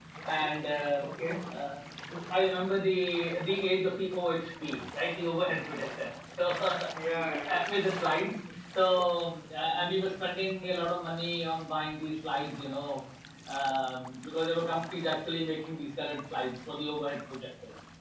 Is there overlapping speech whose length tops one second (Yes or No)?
No